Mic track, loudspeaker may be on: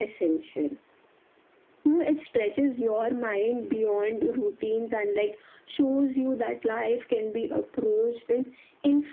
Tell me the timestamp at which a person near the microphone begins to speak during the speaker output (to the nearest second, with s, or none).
none